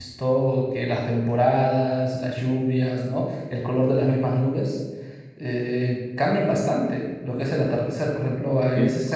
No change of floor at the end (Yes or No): Yes